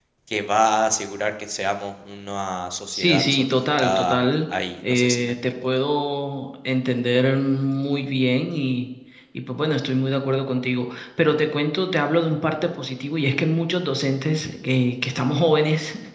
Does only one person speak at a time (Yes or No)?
No